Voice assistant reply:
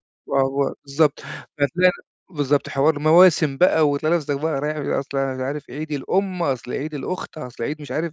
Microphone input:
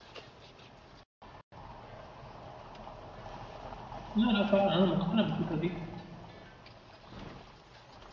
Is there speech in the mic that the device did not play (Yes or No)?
Yes